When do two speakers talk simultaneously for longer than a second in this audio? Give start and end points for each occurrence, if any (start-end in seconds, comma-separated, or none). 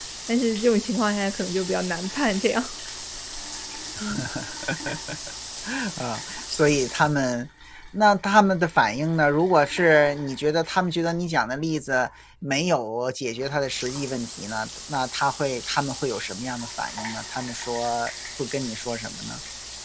none